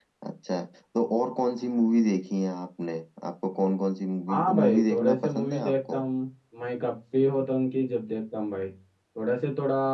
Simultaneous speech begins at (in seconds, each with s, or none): 4.3 s